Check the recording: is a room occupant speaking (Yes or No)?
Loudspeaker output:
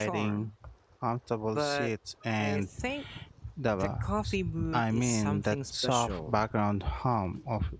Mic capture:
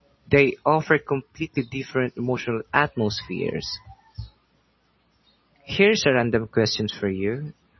Yes